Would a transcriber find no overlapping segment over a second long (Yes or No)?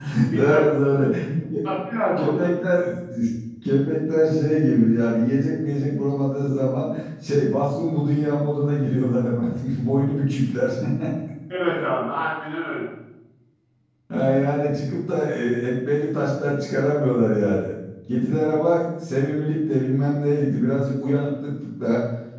Yes